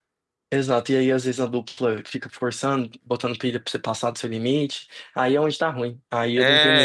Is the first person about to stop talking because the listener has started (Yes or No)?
Yes